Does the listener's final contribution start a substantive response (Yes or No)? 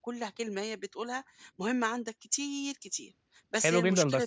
Yes